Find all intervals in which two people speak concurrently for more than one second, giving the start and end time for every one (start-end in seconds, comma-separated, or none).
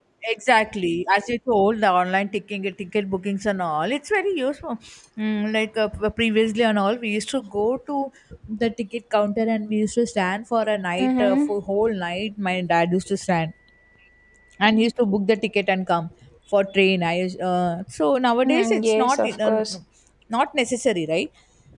18.4-19.7